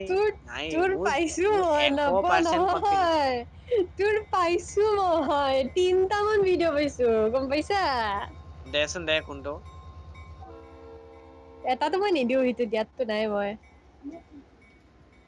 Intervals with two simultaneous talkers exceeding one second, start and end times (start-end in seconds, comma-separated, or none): 1.5-3.1